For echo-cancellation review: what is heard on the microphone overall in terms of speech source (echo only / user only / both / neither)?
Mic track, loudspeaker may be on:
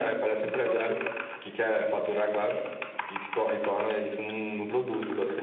both